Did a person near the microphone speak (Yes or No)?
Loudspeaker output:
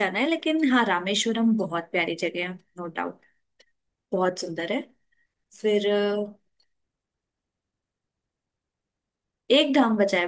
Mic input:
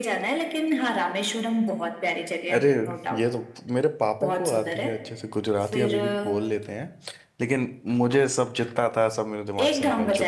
Yes